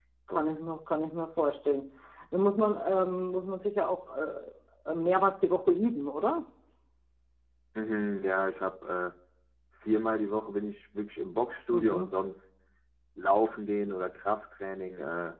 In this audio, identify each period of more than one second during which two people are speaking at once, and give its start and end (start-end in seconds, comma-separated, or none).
none